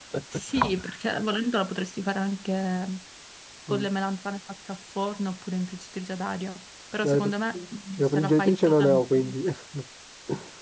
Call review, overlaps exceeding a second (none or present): present